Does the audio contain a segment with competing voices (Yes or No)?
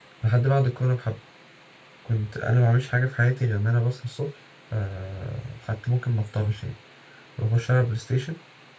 No